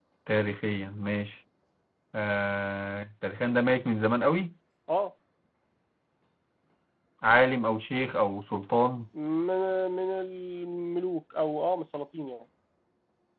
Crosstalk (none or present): none